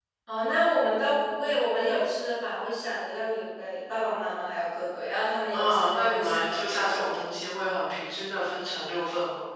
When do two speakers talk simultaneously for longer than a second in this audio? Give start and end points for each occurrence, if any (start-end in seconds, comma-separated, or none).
5.5-7.1